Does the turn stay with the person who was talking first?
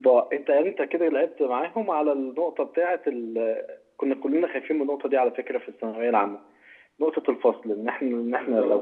Yes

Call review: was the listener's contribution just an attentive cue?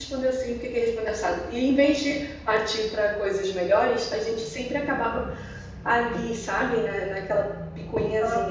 No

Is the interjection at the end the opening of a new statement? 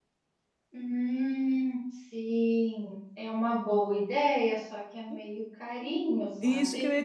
Yes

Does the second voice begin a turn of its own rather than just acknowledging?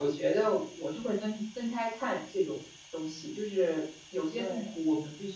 No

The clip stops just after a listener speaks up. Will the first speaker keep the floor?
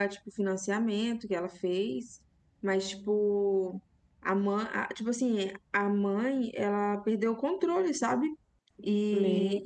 Yes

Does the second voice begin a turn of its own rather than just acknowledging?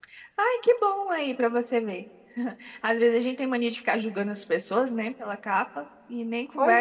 No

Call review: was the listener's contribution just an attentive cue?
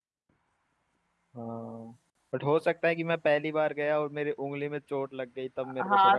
No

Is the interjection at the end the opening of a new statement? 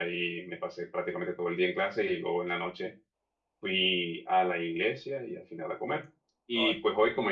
No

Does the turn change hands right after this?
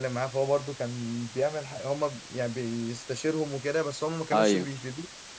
No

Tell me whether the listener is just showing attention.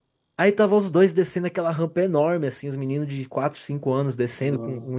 Yes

